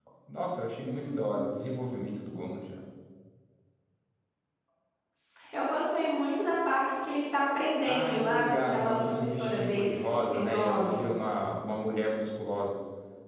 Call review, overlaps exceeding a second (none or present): present